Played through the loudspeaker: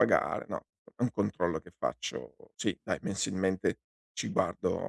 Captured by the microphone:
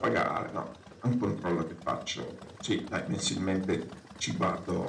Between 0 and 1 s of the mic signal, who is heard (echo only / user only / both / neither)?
echo only